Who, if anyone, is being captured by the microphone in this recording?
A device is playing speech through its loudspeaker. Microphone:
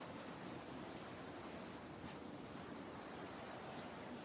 neither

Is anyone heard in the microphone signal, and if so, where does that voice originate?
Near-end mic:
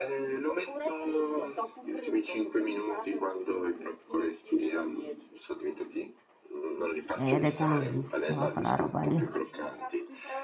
both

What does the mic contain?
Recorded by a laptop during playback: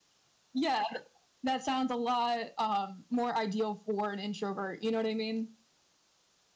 echo only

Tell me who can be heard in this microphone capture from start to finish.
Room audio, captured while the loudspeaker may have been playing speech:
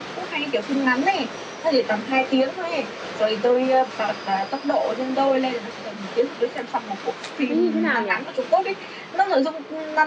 both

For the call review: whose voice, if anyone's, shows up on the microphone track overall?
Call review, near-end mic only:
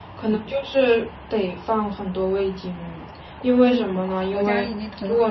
both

